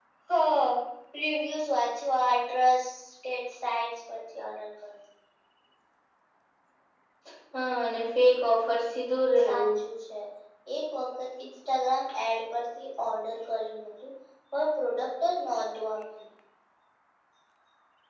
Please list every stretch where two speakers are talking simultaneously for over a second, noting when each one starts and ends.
none

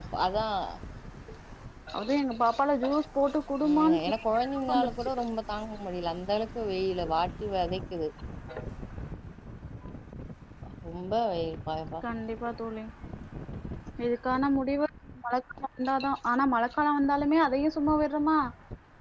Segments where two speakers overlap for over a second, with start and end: 3.6-5.1

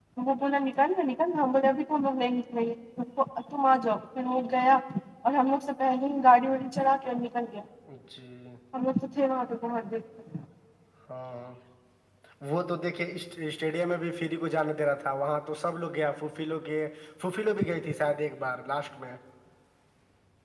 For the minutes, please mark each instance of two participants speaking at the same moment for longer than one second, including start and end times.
none

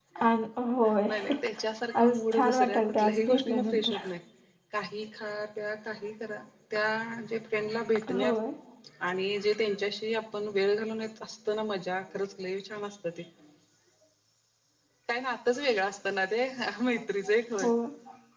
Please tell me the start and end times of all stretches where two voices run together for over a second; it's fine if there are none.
2.0-4.0

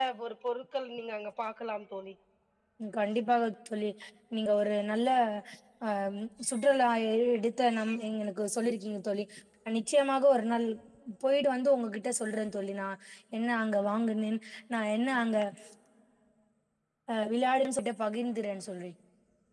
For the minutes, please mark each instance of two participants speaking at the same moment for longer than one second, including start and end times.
none

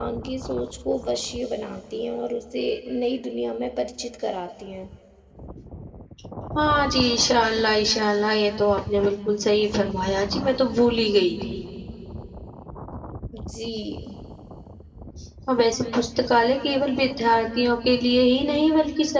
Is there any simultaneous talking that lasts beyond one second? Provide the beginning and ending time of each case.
none

